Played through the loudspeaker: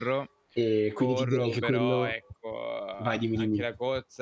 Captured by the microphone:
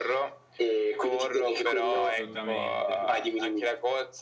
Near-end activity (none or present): present